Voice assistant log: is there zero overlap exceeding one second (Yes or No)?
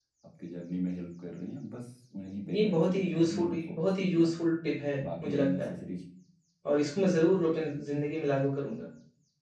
No